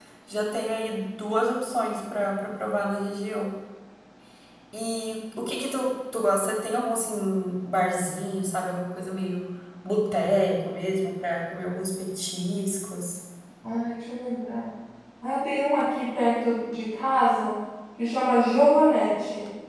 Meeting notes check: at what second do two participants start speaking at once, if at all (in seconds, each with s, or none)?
none